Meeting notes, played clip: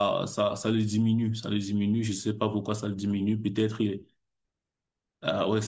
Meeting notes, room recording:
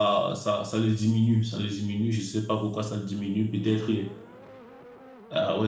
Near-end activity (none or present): none